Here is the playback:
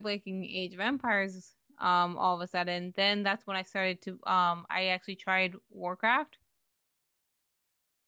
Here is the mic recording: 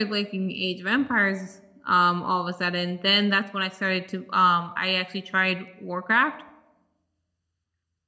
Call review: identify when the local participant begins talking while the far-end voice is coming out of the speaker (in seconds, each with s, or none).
none